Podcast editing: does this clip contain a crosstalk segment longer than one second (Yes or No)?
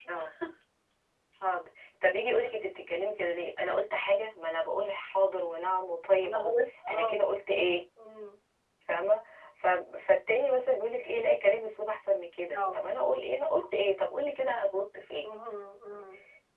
No